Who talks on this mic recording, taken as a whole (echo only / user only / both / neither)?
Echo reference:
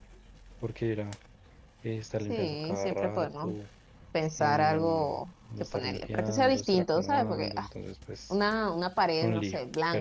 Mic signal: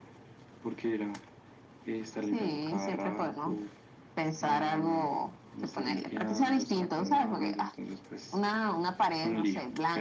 echo only